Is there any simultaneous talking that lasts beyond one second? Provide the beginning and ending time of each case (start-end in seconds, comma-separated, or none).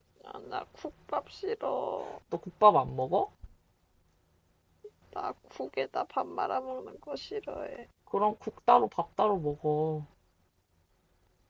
none